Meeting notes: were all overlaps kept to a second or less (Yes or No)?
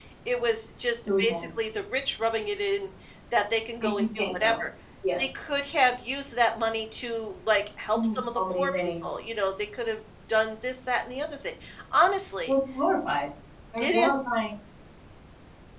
No